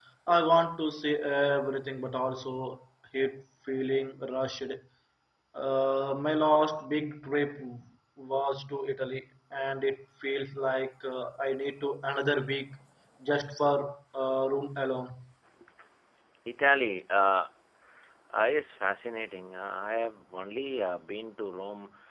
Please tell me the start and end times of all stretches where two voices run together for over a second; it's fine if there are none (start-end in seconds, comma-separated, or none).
none